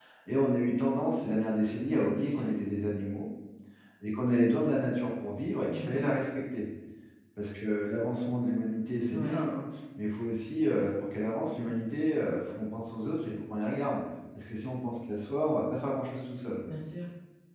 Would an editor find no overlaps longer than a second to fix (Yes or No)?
Yes